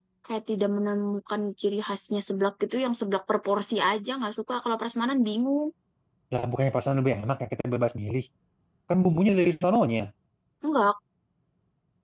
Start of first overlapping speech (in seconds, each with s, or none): none